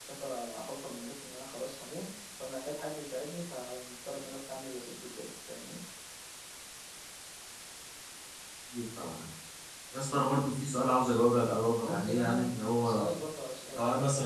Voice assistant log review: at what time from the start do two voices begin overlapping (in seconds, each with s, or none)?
11.8 s